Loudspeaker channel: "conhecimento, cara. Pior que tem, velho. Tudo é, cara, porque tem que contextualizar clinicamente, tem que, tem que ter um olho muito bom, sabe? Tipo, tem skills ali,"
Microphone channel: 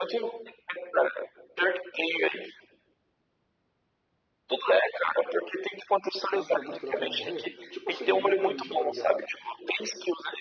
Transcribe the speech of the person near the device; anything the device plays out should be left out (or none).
naturalmente a tarefa não vai morrer? Tipo assim, um motorista, por exemplo.